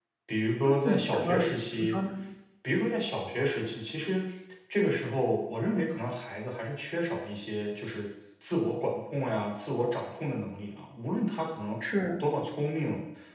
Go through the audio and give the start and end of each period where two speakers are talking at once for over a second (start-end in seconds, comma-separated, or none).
0.6-2.0